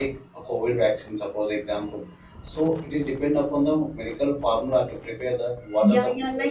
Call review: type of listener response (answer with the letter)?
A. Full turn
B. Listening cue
A